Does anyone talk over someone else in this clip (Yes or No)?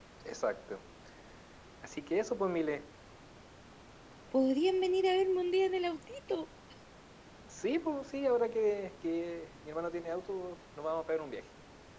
No